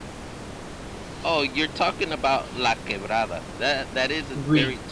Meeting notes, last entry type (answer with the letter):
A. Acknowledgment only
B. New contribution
A